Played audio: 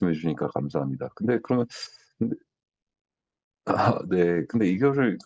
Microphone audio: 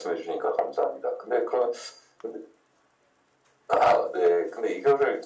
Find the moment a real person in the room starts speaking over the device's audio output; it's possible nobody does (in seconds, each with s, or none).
none